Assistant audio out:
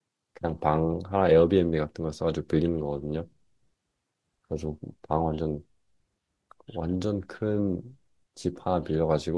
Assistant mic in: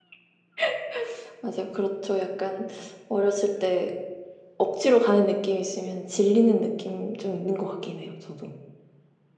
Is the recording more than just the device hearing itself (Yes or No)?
Yes